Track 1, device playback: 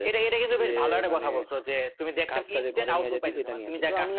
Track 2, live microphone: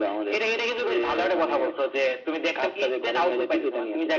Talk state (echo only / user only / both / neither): echo only